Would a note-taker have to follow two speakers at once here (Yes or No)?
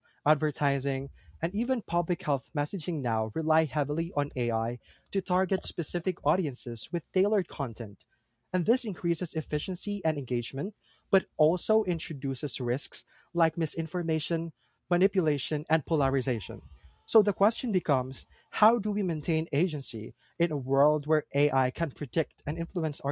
No